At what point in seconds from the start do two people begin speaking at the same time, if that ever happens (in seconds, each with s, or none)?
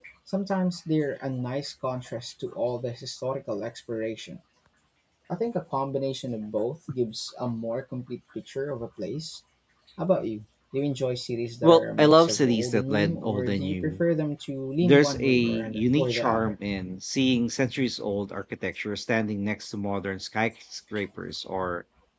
11.6 s